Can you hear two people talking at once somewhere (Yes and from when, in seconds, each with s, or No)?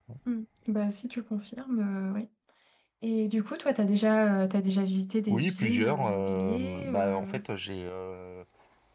Yes, from 5.3 s